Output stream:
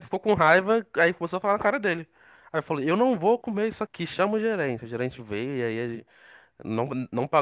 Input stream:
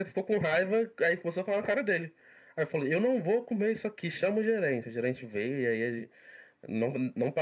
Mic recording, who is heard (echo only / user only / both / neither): echo only